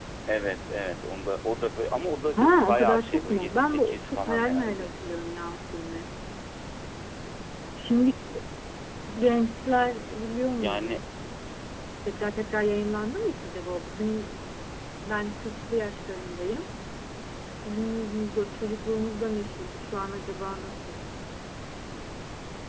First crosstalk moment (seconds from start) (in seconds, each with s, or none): 2.4 s